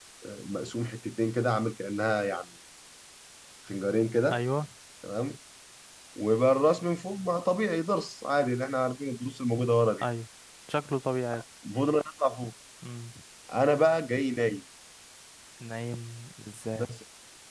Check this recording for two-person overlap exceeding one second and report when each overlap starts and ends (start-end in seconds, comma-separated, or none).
none